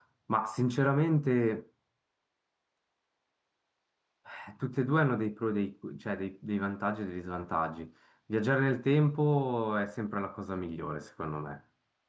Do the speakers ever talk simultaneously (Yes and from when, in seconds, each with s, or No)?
No